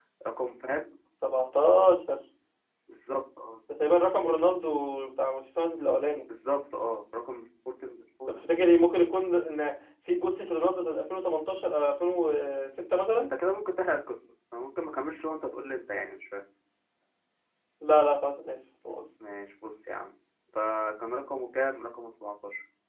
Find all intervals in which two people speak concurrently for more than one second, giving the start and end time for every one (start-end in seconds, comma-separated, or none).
none